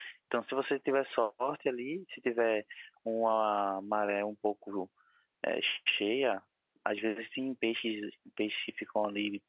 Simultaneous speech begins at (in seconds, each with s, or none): none